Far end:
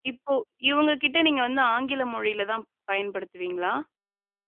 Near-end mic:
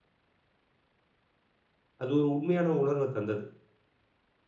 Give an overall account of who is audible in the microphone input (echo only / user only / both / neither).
user only